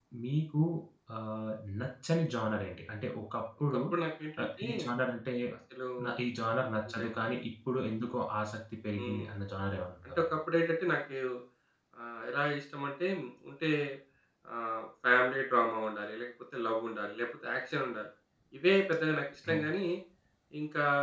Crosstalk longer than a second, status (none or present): none